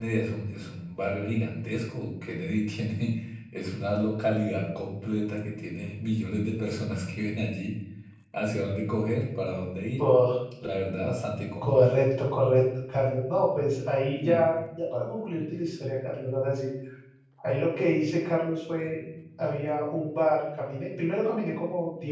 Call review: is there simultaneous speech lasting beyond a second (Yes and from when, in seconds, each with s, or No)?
No